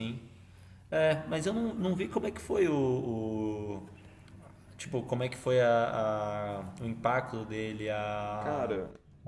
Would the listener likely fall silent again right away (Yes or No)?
Yes